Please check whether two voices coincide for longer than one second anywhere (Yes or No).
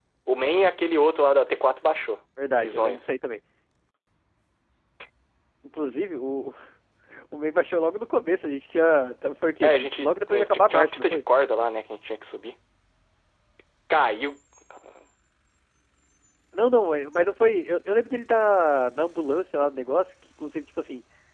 Yes